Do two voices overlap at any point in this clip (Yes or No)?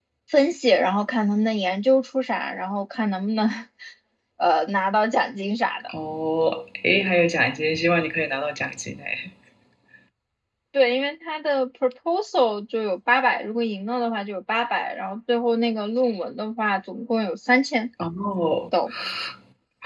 No